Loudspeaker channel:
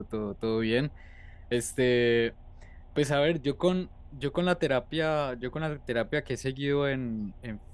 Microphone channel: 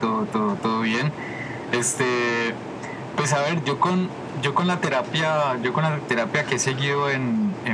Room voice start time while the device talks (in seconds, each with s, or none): none